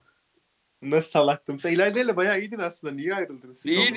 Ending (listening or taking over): taking over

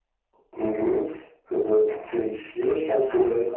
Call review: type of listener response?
listening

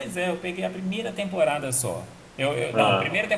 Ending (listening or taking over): listening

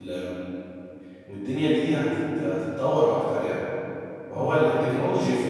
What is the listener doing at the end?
listening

